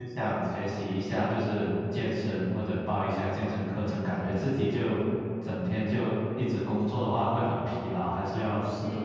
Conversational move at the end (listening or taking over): taking over